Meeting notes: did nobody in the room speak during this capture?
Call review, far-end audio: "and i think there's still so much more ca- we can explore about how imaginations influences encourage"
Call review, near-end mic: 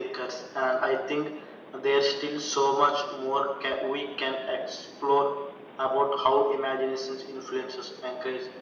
Yes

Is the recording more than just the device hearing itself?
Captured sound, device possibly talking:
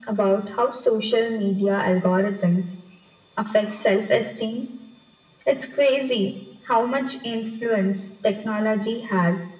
No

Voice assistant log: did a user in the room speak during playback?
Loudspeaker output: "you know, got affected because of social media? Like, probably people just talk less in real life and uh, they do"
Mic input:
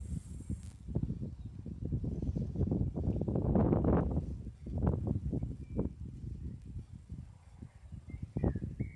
No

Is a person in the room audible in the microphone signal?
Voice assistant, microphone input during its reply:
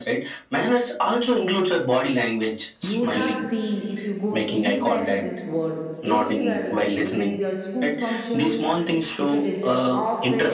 Yes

